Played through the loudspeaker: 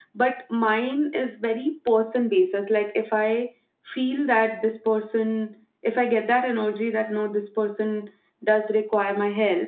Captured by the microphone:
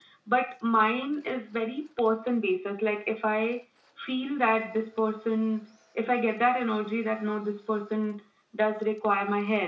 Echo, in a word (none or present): present